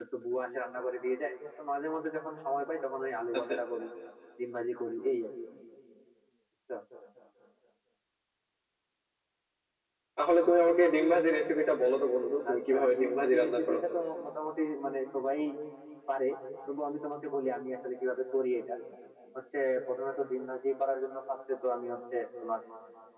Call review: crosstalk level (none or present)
present